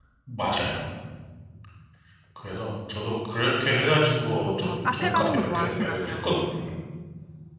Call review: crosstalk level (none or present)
present